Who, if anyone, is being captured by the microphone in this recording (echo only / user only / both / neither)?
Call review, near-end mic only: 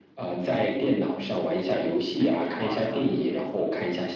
both